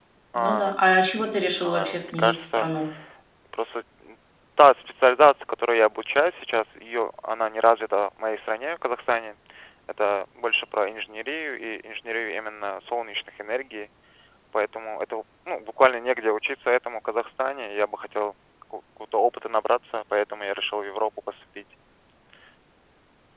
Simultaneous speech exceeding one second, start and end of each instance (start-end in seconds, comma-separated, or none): 1.2-2.7